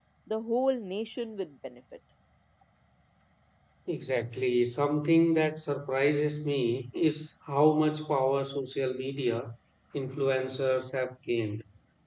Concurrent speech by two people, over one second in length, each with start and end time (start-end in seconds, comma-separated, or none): none